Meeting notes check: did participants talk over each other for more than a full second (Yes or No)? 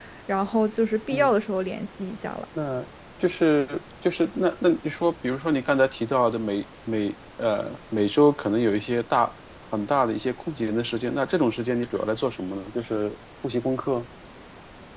No